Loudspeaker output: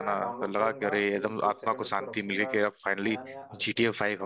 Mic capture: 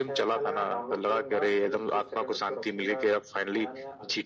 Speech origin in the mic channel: echo only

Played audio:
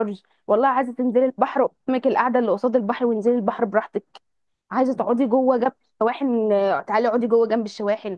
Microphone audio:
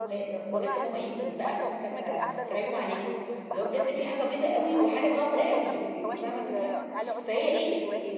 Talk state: both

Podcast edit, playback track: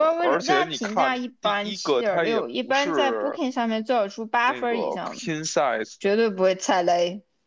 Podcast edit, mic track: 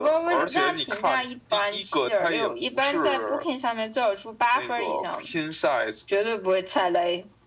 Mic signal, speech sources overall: echo only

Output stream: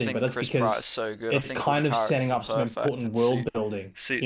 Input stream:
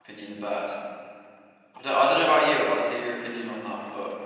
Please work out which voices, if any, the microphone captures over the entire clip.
user only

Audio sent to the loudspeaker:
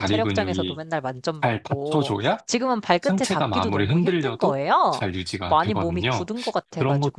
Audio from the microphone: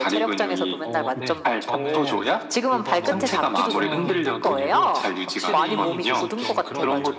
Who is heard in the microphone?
both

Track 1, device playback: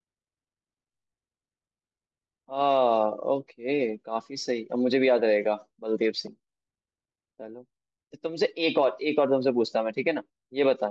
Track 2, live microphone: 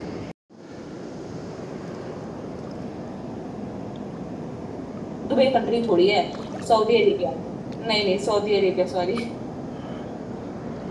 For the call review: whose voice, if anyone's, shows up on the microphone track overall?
user only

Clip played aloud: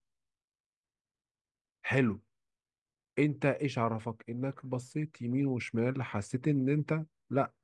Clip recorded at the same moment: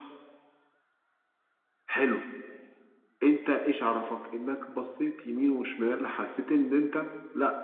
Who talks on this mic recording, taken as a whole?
echo only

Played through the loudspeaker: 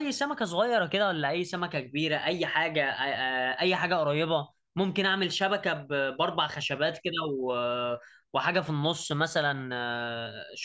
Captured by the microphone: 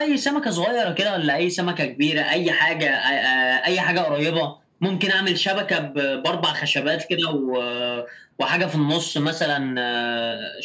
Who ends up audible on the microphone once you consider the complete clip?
echo only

